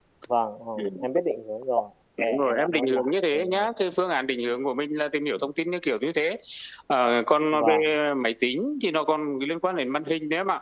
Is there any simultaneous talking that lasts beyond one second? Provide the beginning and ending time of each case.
2.3-3.7

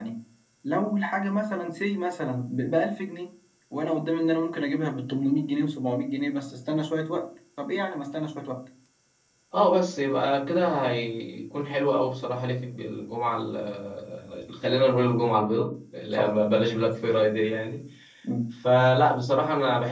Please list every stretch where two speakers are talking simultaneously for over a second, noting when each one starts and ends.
none

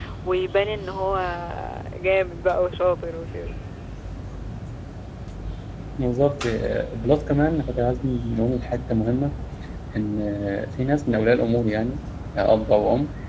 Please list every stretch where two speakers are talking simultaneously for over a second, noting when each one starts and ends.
none

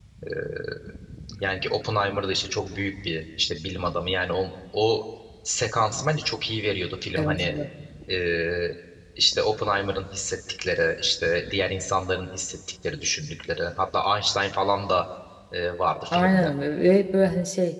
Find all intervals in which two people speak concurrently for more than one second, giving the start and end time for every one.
none

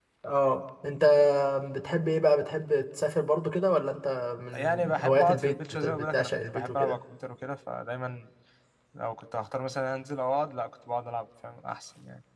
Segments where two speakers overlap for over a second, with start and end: 4.5-7.0

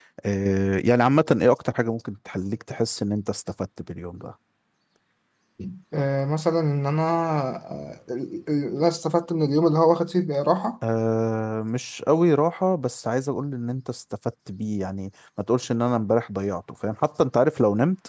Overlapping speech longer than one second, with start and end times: none

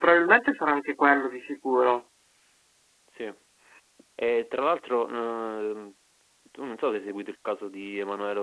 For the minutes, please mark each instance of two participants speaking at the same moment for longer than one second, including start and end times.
none

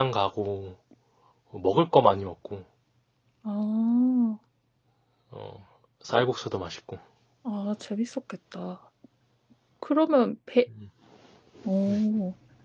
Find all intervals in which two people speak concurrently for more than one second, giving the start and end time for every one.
none

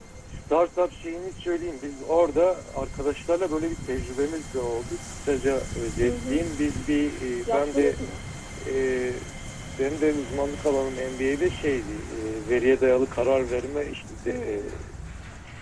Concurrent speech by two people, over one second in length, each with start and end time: none

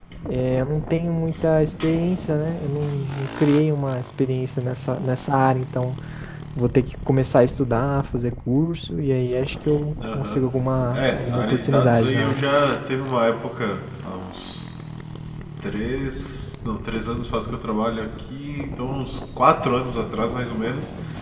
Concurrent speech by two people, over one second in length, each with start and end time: 10.9-12.4

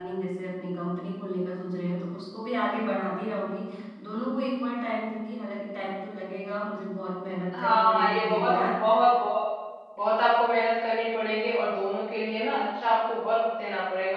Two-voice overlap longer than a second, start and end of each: 7.5-8.9

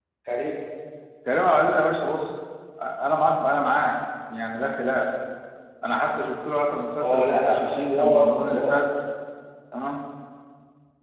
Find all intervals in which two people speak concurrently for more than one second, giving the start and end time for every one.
7.0-8.8

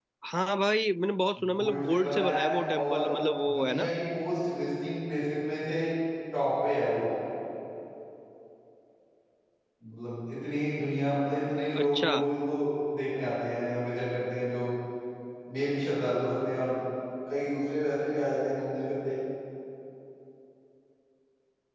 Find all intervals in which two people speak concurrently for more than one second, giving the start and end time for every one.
1.5-3.1

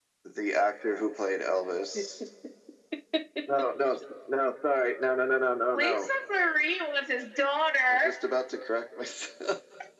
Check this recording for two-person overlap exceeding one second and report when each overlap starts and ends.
none

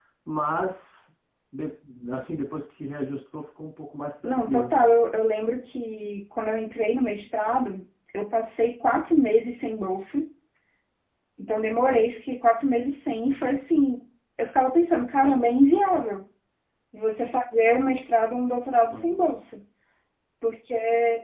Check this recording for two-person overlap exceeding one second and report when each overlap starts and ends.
none

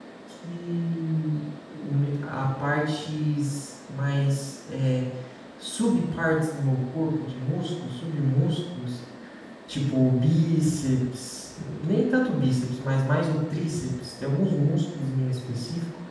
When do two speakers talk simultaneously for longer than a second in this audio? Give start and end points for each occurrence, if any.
none

